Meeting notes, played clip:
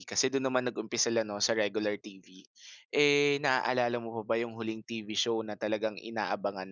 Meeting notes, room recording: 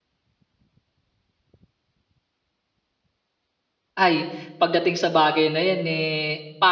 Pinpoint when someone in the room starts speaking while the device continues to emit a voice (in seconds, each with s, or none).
4.0 s